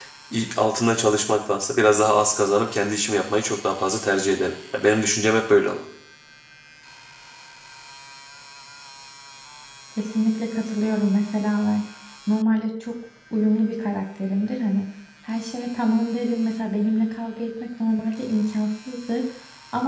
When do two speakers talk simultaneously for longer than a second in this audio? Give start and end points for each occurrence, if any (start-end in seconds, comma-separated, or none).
none